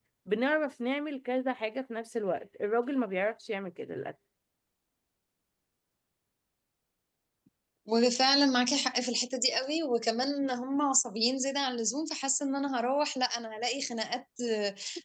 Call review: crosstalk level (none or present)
none